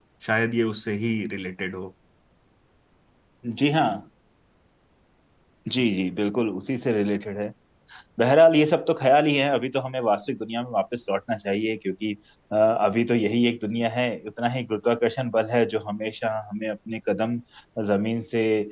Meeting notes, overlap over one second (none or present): none